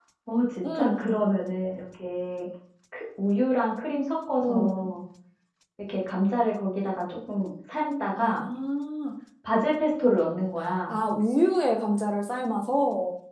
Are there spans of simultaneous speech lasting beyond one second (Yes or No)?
No